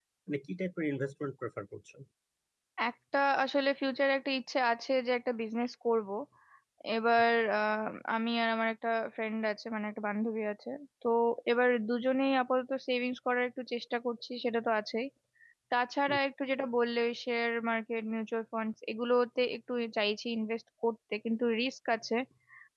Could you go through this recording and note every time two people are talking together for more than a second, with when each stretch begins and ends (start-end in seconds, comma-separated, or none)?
none